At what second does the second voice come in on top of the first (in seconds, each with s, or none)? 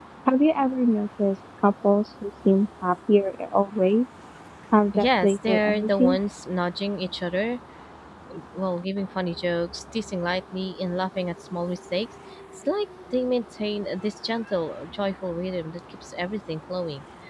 4.9 s